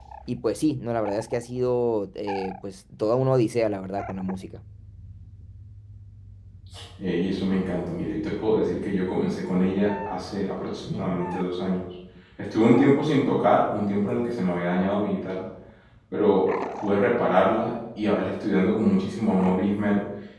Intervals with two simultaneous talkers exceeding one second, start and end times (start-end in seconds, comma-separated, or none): none